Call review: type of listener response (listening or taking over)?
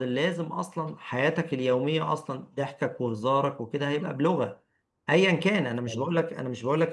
listening